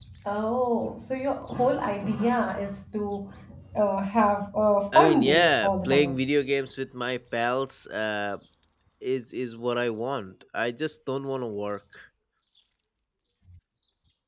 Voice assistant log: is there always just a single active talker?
No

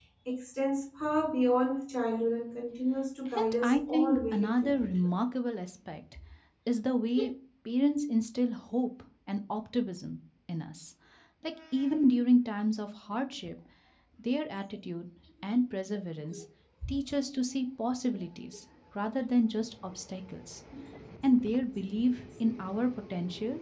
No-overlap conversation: No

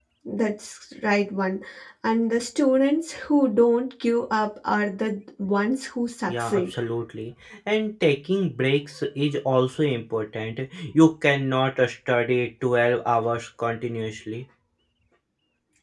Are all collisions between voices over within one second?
Yes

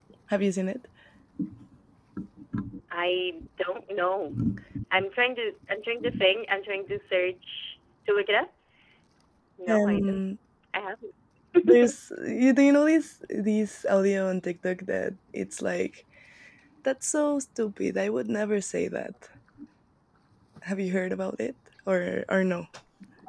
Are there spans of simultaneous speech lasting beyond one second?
No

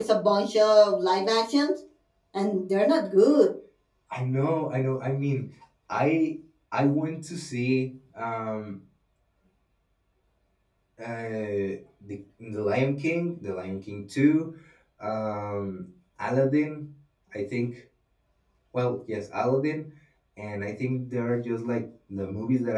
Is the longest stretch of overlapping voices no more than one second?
Yes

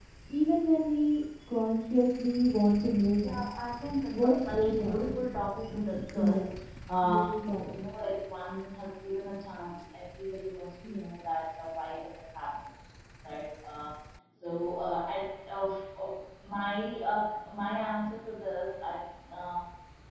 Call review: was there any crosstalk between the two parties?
Yes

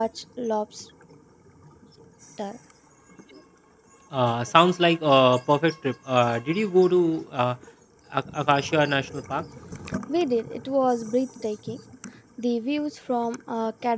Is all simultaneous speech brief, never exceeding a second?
Yes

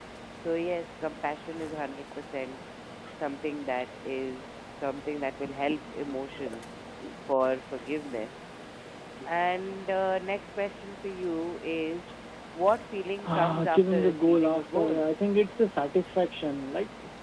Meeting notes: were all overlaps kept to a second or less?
No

